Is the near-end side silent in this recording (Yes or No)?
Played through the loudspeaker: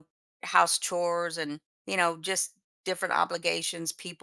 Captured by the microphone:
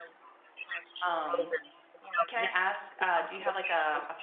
No